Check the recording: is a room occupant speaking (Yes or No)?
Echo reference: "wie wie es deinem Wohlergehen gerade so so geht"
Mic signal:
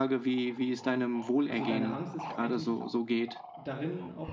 Yes